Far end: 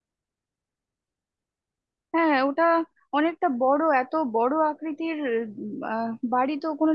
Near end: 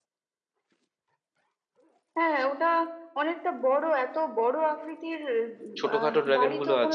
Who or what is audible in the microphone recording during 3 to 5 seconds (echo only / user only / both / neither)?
echo only